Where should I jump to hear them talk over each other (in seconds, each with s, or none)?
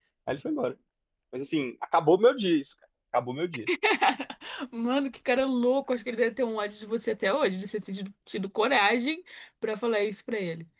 none